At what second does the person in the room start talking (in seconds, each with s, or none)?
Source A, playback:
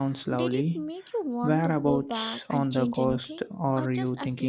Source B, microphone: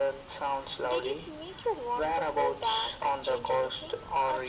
none